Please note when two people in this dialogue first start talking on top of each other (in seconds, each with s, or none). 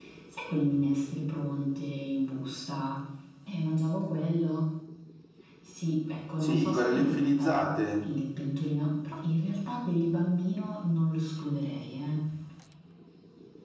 6.4 s